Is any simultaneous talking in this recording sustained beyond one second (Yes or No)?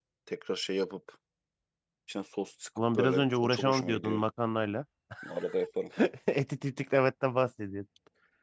Yes